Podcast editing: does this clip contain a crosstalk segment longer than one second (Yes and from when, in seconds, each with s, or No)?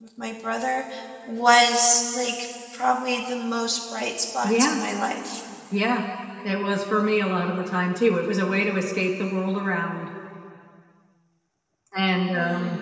No